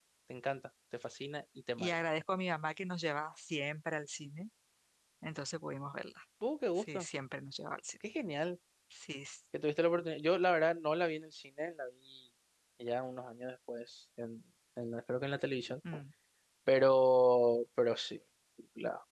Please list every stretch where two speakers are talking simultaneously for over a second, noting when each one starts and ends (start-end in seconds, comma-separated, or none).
none